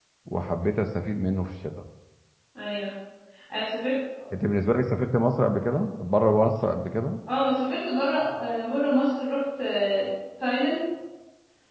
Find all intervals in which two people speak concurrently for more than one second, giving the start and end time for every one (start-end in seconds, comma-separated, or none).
none